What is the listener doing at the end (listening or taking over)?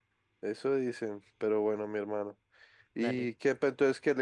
listening